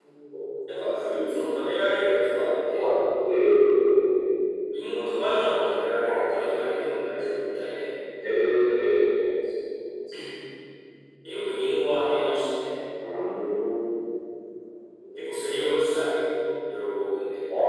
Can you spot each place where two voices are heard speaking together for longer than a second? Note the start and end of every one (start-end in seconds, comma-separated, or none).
none